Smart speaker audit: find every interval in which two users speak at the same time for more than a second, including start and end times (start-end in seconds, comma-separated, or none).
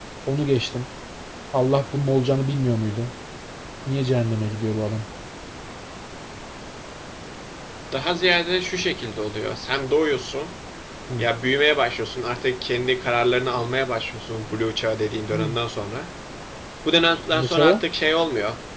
none